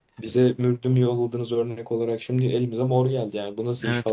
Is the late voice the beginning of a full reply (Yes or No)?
Yes